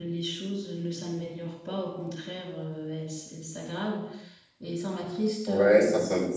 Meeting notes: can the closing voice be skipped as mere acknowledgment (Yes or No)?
No